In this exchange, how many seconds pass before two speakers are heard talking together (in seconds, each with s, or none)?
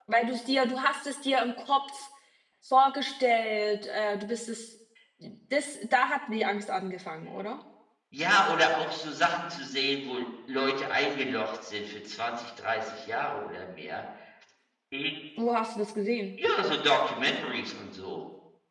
none